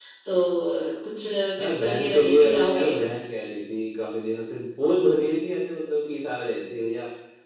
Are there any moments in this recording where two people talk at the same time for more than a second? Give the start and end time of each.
1.6-2.9

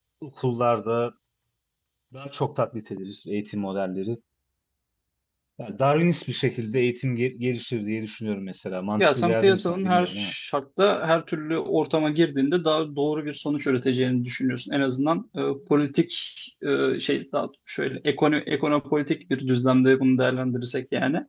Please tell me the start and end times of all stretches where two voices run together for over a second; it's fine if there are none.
9.0-10.3

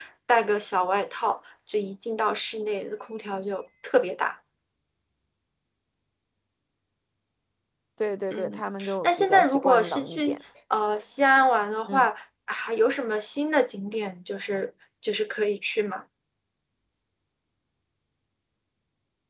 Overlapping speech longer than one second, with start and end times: 8.3-10.4

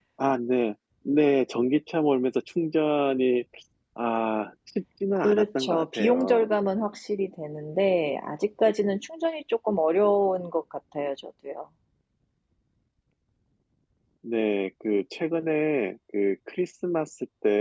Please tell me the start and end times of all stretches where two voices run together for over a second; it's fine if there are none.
5.2-6.5

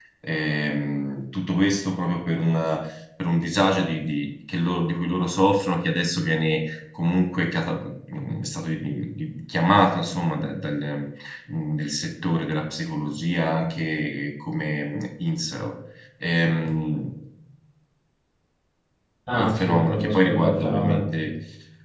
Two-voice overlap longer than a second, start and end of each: 19.4-21.0

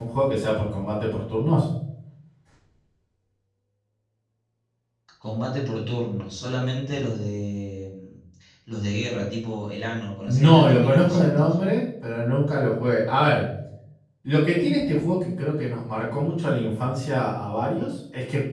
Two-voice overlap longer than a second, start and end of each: 10.3-11.5

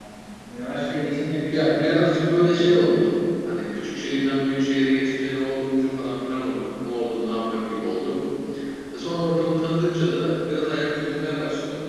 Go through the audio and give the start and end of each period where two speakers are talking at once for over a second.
1.5-2.8

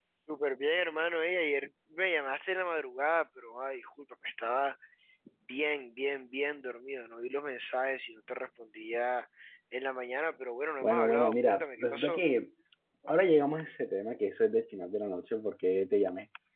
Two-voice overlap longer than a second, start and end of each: 10.8-12.2

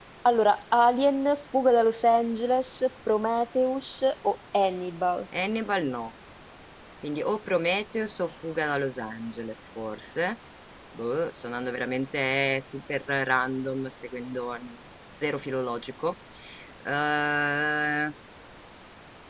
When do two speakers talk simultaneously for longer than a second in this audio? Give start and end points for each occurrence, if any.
none

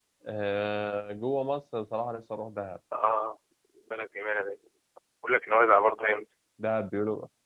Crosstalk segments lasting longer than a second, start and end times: none

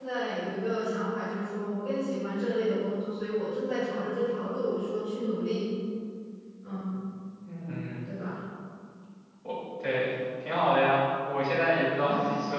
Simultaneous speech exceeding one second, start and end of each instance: none

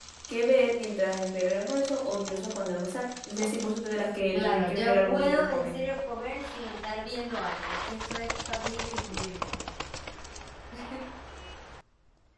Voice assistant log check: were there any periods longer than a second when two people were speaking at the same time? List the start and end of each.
4.3-5.8

